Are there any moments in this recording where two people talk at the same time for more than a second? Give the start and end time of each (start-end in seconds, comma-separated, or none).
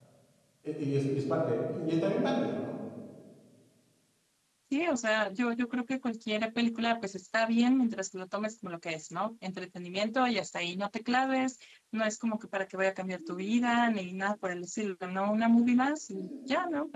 none